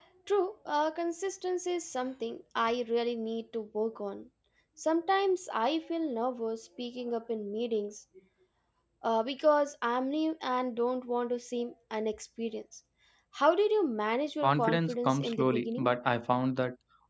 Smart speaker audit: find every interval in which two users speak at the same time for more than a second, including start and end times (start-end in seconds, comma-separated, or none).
14.4-15.9